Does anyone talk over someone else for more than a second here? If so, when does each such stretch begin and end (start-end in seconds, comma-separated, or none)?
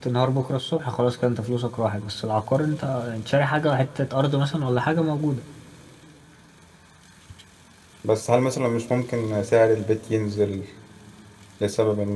none